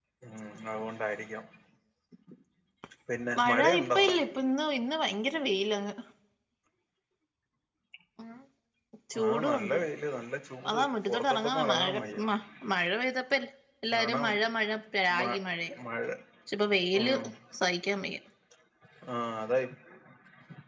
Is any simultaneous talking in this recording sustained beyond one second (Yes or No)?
Yes